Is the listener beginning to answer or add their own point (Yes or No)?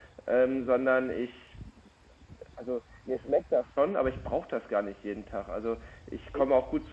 No